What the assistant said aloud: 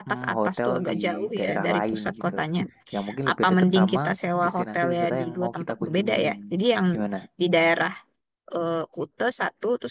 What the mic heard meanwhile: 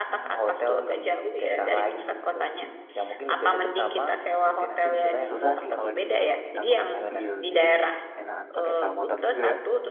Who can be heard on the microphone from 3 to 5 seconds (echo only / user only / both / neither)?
echo only